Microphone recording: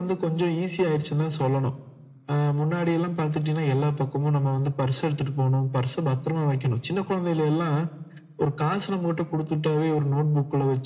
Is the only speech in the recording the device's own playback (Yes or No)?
Yes